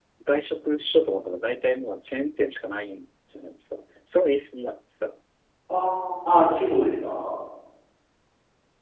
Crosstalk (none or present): none